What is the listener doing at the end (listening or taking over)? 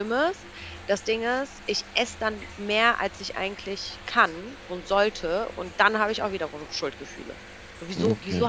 listening